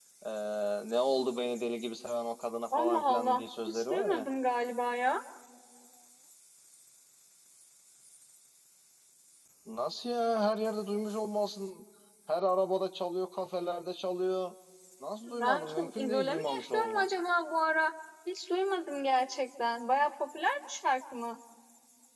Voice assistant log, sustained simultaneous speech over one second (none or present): present